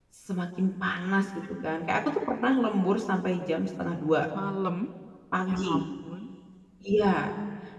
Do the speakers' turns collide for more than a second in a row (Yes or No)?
No